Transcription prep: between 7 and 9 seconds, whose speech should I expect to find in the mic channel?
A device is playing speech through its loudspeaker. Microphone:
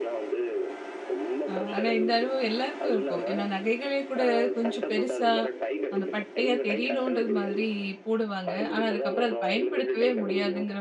both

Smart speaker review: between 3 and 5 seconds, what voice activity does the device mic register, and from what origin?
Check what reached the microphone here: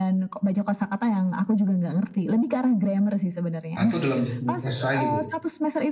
both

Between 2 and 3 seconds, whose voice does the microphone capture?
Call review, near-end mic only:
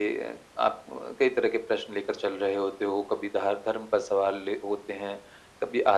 echo only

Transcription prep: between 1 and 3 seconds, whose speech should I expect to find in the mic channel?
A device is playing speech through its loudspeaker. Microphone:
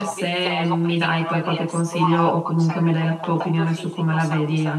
both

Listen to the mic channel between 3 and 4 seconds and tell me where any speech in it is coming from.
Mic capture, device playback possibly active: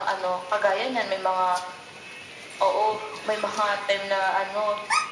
echo only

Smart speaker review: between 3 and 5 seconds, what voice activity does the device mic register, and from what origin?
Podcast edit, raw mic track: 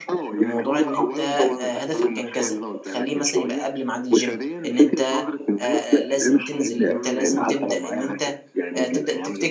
both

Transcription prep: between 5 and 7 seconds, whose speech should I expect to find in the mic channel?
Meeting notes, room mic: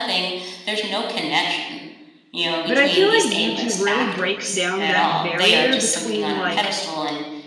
both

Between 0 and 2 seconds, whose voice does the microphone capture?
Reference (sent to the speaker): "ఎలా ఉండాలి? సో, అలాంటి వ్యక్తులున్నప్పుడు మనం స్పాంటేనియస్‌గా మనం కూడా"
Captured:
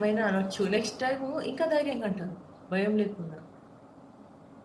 user only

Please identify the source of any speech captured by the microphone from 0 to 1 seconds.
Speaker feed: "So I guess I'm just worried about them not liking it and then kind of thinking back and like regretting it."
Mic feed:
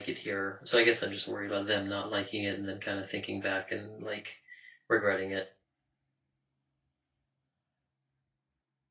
echo only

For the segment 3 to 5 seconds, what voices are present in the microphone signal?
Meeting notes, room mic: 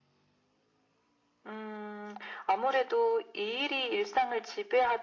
echo only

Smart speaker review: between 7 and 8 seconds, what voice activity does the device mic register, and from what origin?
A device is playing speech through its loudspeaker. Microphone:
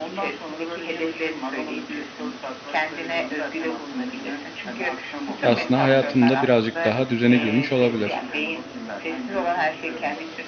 both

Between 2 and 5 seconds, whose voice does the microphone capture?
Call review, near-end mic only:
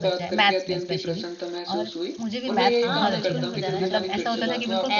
both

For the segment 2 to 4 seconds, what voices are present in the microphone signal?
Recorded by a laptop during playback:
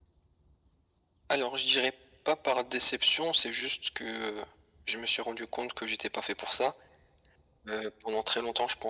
echo only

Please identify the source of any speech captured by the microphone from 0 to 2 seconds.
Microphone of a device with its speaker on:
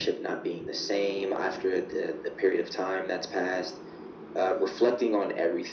echo only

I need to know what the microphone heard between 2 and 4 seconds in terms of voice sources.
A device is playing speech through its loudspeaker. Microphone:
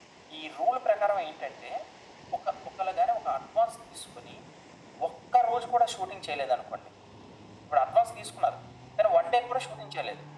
echo only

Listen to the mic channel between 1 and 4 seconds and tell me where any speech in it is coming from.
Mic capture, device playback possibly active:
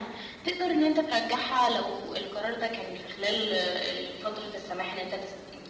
echo only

